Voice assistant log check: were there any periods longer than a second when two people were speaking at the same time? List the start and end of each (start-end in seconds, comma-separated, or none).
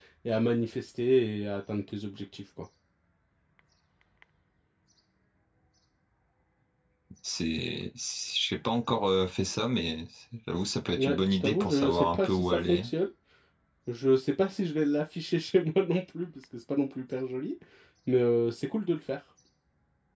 11.0-12.8